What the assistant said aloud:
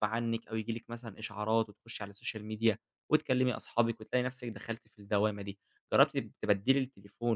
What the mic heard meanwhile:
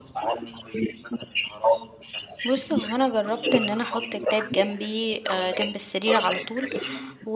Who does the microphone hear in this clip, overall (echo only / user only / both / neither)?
both